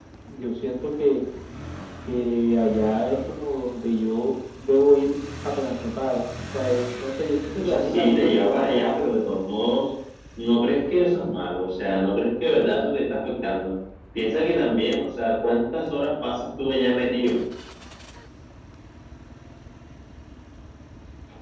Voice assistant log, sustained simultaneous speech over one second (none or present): present